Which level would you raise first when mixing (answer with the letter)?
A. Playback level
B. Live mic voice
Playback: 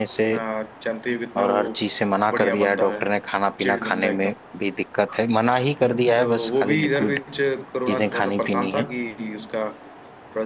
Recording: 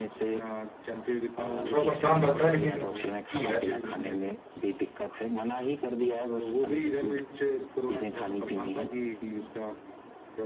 A